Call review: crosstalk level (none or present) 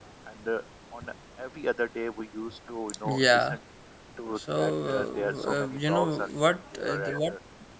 present